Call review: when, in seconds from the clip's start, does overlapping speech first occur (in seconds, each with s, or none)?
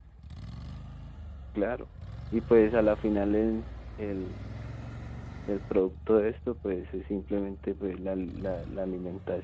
none